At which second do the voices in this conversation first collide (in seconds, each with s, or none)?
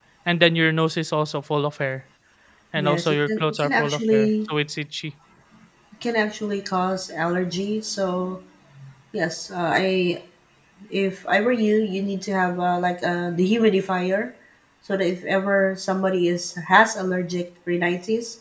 2.8 s